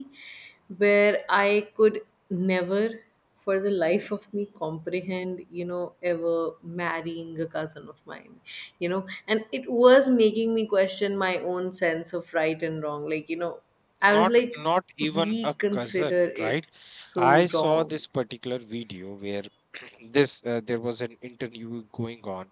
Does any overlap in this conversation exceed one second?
Yes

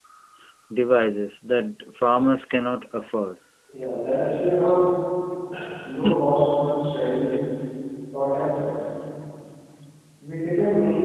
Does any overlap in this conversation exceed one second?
No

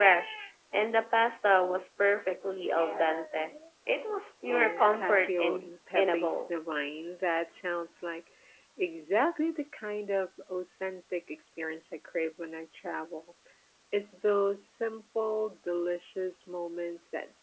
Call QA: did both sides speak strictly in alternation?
No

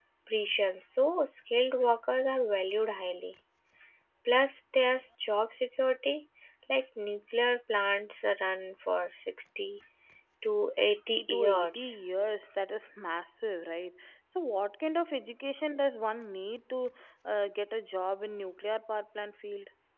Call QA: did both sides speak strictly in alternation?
No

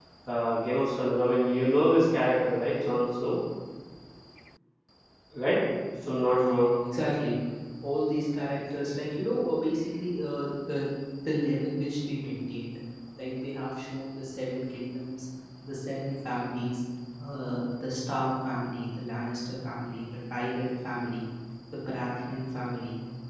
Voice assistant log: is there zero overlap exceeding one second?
Yes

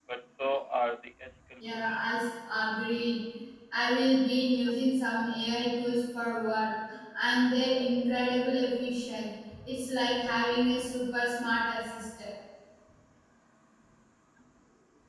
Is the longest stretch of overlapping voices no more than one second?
Yes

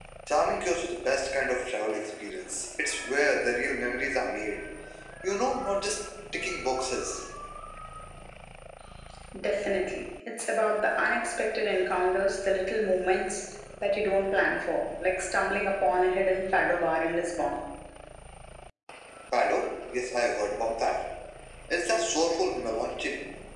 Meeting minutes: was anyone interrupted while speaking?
No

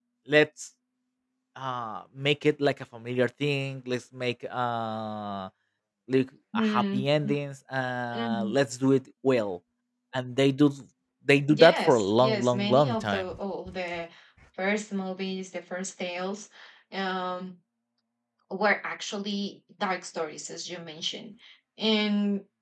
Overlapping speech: Yes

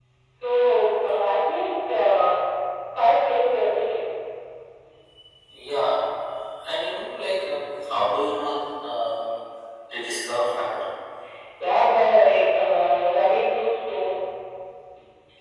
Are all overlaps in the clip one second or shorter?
Yes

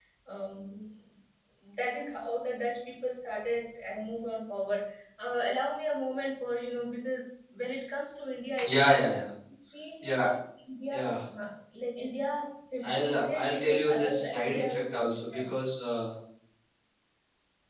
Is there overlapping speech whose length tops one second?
Yes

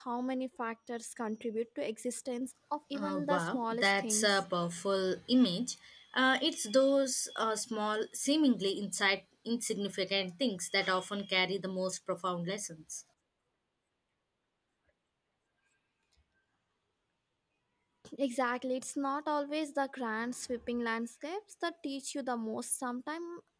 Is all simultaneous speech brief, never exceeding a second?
No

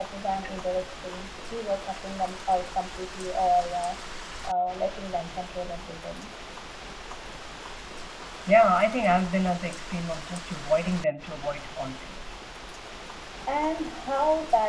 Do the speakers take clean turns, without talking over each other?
Yes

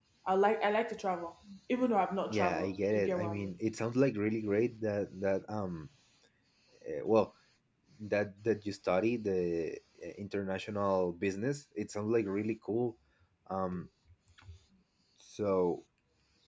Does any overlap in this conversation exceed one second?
Yes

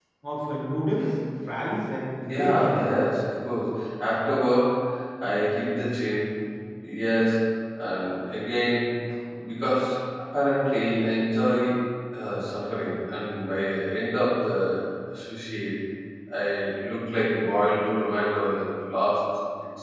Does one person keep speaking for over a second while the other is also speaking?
No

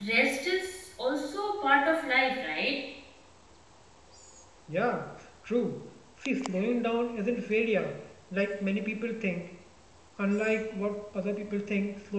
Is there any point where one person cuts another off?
No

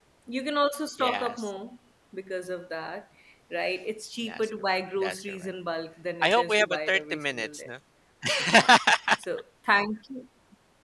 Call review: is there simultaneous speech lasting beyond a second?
Yes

